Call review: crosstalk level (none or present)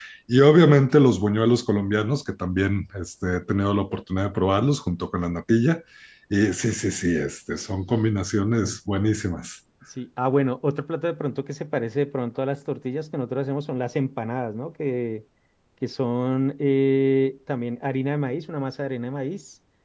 none